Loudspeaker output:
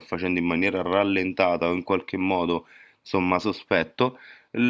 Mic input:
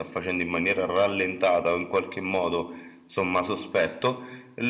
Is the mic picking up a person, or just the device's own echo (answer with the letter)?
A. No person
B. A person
A